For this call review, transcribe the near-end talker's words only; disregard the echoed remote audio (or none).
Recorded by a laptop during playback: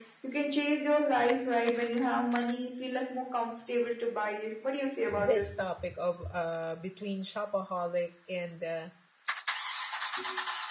this topic of uh, between shopaholic and uh,